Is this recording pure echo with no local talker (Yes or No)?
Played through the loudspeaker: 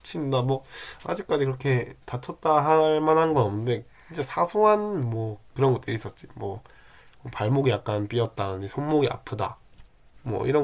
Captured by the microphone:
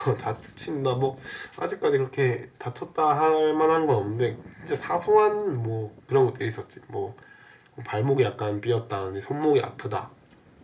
Yes